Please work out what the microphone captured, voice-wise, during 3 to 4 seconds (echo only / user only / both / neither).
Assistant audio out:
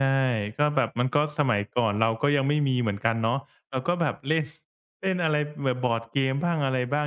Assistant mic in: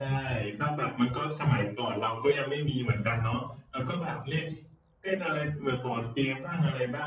echo only